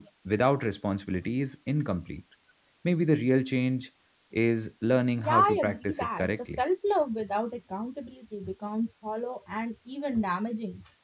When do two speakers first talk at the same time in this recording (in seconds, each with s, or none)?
5.2 s